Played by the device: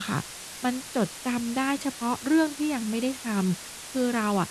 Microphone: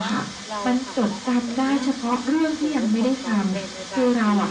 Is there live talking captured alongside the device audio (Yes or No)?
Yes